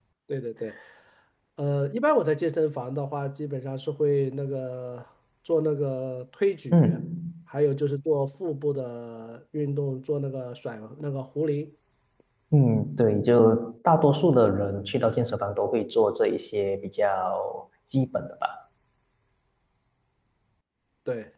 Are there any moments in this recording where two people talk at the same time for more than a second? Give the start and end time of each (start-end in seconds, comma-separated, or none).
none